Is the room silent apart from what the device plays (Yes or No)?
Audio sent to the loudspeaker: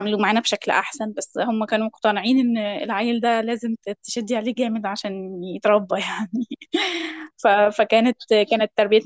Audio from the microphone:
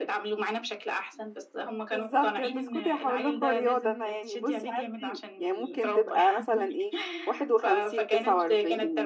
No